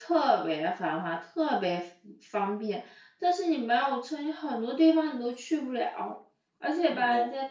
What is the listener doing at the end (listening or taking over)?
listening